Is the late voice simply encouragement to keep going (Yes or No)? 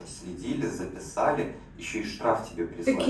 No